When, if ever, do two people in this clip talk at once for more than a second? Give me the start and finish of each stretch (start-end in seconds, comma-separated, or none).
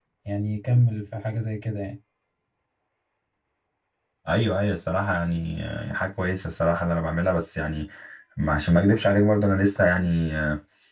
none